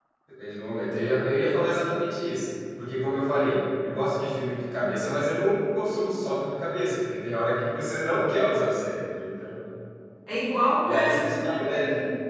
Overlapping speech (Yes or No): Yes